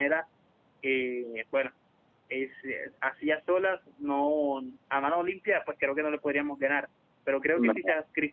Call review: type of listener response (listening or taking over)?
listening